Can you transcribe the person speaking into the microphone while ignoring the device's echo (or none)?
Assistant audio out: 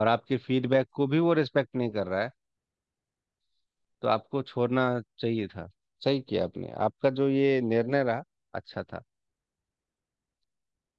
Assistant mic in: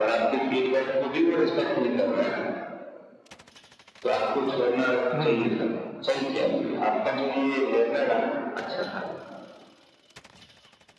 हाँ